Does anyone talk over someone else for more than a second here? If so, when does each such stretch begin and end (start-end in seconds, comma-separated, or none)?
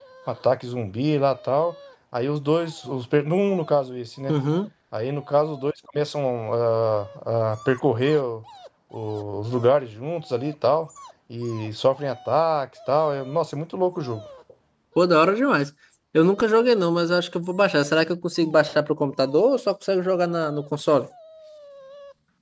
none